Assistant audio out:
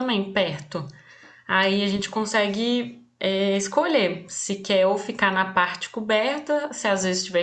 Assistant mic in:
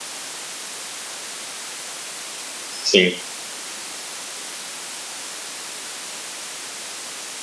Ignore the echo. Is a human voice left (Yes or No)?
Yes